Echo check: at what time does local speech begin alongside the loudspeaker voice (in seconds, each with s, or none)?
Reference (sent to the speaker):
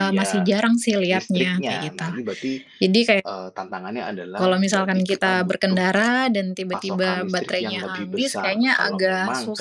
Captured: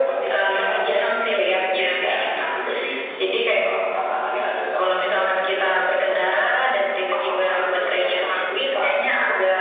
none